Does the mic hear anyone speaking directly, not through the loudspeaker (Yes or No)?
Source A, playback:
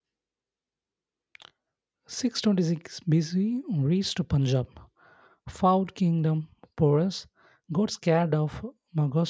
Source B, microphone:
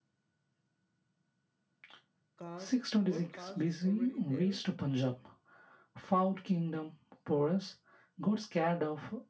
Yes